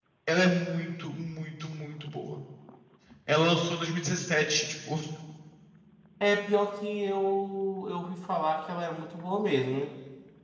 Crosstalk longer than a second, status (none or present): none